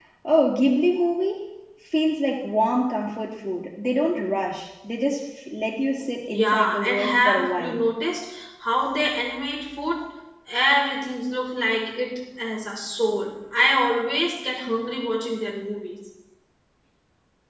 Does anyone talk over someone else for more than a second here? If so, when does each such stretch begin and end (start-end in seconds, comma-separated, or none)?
6.3-7.8